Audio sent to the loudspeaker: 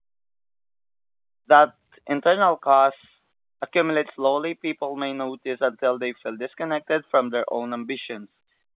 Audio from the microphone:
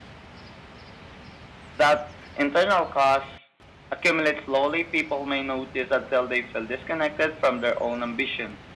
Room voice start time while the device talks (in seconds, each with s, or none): none